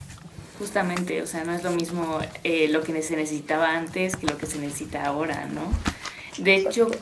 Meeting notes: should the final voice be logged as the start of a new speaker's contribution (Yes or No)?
No